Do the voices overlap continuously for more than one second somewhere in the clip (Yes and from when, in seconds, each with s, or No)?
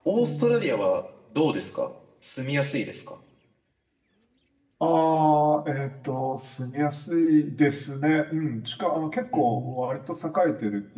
No